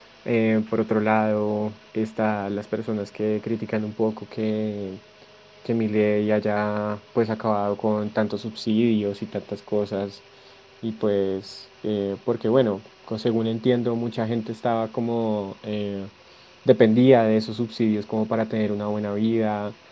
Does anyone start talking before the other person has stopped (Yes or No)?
No